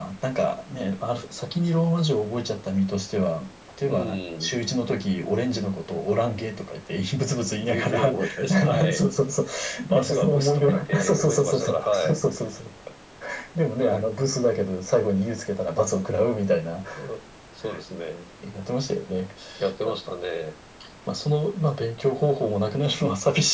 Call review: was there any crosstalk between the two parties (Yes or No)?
Yes